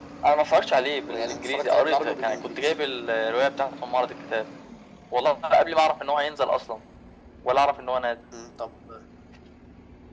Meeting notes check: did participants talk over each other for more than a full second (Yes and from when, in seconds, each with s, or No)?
Yes, from 1.1 s